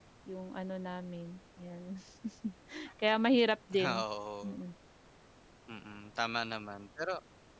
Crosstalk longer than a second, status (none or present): none